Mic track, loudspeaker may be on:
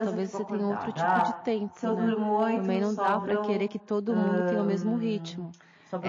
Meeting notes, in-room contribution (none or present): present